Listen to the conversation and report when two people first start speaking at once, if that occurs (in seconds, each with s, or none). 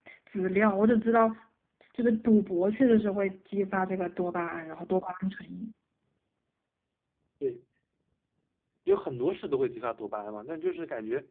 none